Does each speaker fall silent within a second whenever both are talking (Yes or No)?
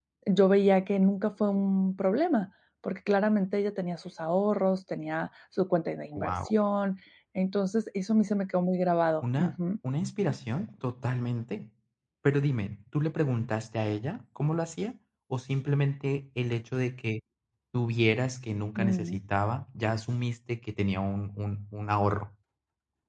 Yes